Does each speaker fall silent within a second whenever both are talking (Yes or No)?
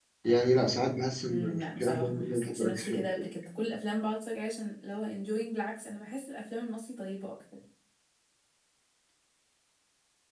No